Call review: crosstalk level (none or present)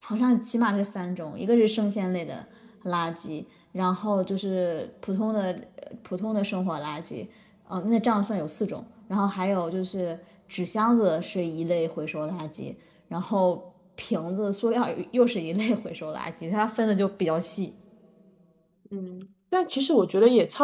none